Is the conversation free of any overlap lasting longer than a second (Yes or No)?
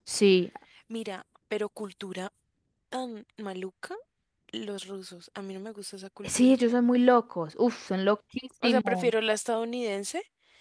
Yes